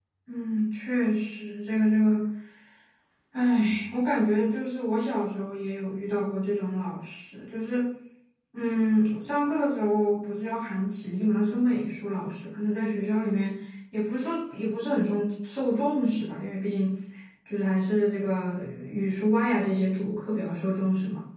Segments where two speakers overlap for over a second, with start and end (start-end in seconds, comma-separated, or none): none